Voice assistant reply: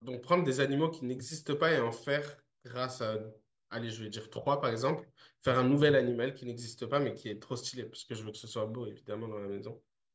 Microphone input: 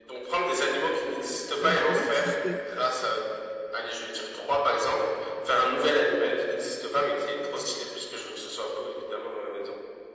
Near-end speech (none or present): present